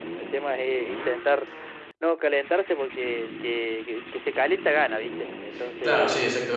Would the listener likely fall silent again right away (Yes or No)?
No